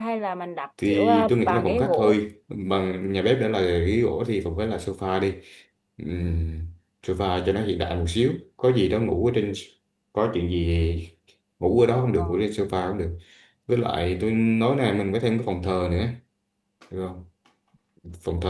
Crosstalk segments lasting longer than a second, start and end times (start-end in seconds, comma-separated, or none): 0.8-2.1